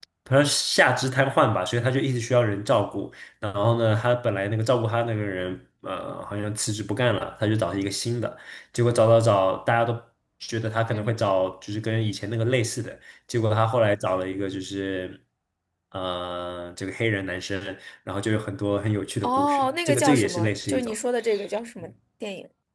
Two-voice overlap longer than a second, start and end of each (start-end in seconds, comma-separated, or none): 19.2-20.9